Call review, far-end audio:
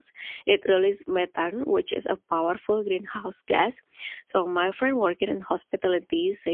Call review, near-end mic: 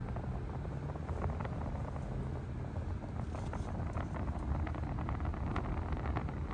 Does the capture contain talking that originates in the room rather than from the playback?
No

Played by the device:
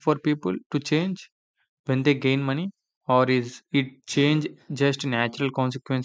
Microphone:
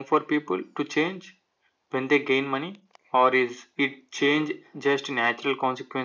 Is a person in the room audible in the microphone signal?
No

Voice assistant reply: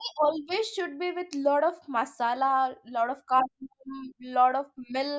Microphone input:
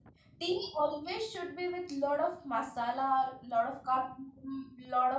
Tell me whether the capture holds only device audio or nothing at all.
Yes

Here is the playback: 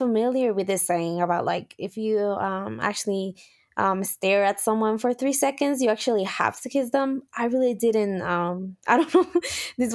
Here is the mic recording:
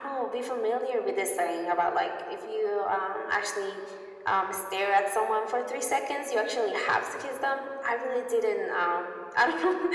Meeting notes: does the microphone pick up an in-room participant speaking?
No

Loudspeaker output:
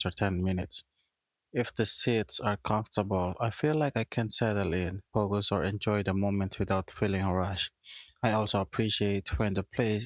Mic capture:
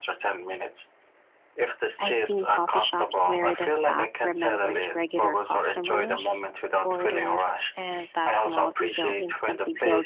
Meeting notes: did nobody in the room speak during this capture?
No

